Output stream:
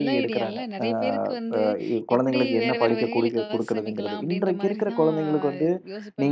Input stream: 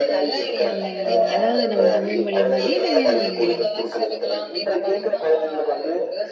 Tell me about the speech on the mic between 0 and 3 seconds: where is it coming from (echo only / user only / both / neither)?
both